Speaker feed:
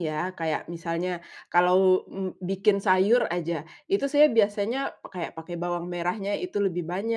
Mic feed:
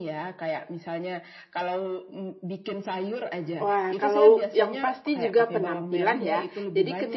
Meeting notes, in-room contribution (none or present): present